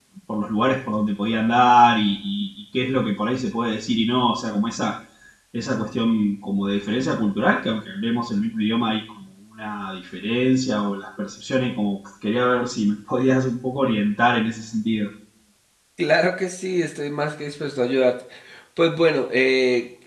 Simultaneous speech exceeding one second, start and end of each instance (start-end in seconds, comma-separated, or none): none